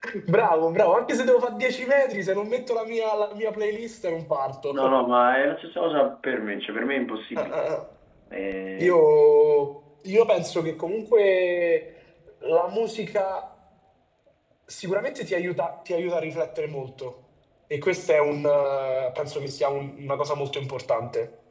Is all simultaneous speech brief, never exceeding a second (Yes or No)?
Yes